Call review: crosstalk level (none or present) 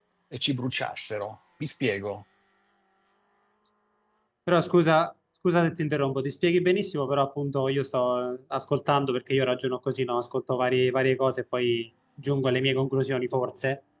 none